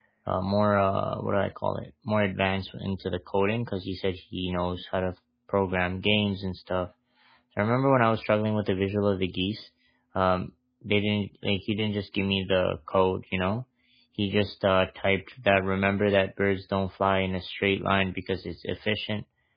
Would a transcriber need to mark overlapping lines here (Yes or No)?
No